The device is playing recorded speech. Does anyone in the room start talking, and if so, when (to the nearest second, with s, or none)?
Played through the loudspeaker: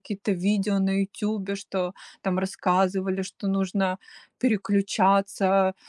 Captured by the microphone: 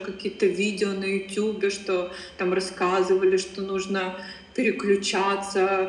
none